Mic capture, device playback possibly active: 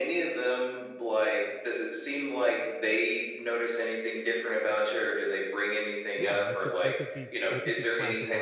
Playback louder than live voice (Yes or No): Yes